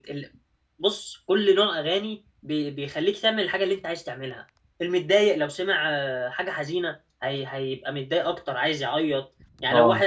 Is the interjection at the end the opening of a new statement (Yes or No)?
No